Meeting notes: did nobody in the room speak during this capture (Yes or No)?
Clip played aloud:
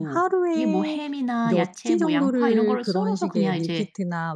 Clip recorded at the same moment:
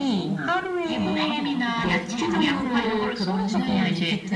No